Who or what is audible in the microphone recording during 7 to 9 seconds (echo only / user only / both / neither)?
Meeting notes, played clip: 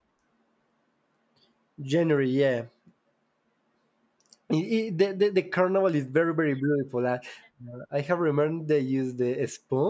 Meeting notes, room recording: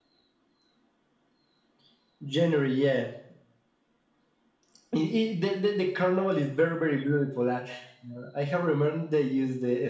echo only